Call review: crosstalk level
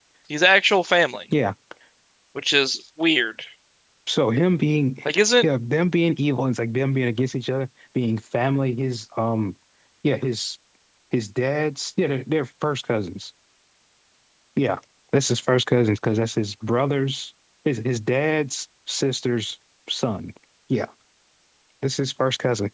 none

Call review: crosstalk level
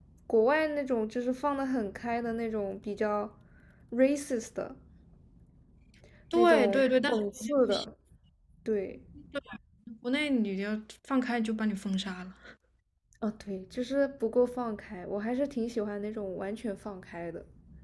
present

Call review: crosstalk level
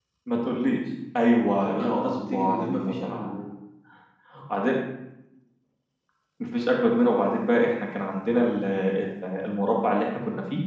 present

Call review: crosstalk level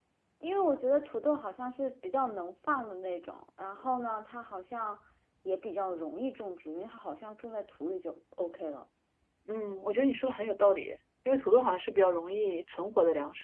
none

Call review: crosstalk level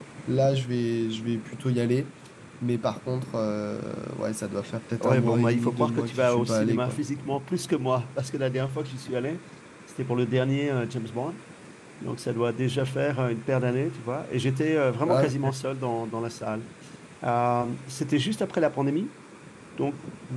present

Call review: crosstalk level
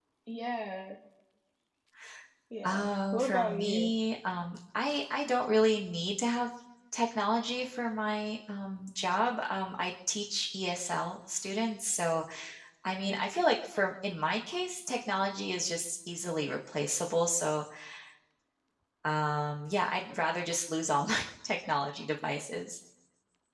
present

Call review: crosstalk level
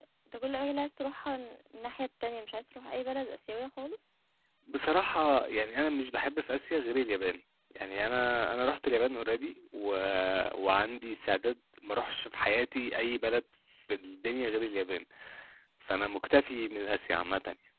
none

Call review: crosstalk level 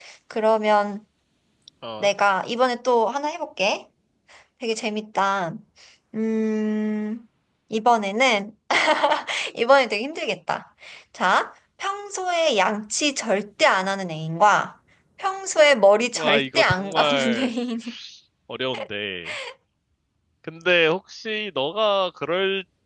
present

